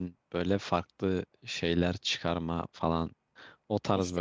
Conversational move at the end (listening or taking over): listening